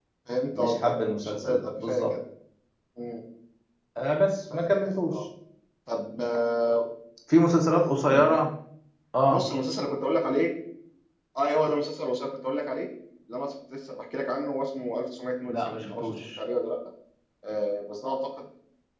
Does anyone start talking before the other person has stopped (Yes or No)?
Yes